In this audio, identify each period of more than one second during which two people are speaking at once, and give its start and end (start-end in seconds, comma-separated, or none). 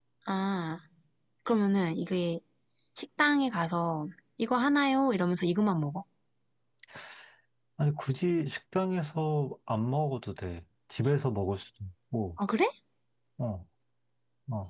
none